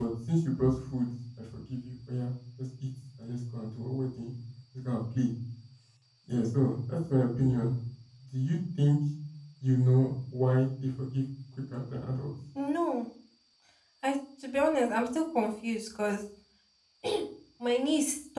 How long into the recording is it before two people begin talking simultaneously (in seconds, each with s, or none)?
none